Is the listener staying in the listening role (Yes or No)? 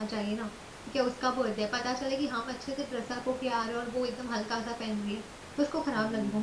No